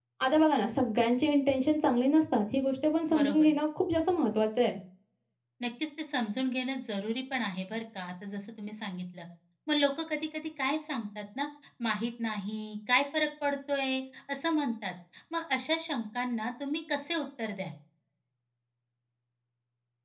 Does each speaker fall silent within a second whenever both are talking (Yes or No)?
Yes